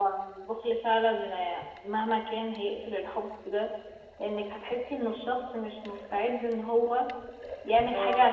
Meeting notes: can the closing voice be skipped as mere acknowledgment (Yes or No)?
Yes